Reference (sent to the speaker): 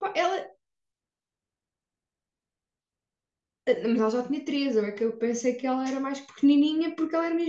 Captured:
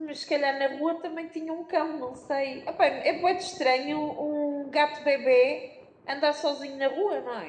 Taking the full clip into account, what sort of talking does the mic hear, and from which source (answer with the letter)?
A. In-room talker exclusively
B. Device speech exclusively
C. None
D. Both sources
A